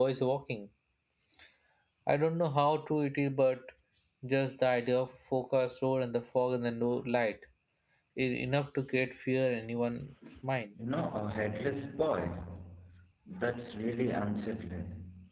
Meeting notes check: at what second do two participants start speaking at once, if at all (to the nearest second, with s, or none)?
none